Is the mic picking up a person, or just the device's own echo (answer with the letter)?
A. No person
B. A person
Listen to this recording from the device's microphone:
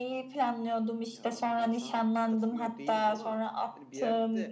B